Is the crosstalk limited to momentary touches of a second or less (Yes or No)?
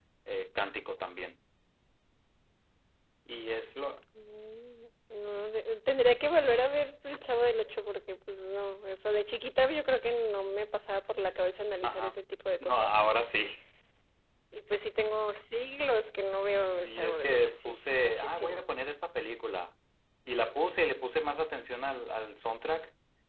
No